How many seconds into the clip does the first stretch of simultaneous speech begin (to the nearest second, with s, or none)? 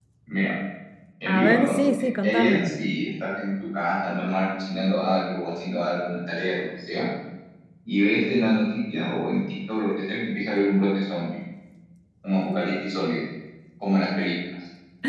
1 s